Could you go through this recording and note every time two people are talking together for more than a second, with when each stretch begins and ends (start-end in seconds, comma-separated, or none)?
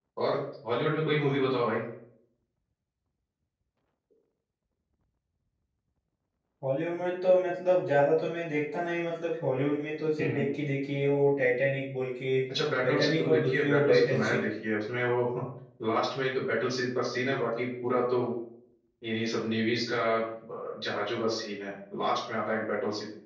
12.8-14.4